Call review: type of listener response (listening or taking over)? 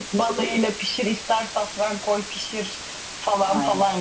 listening